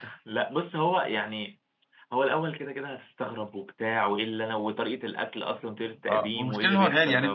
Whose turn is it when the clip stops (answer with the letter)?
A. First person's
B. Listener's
B